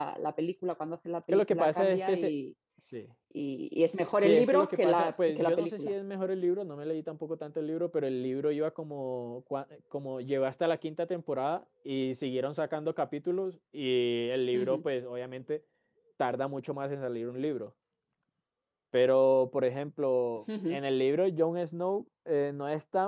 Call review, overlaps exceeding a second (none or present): present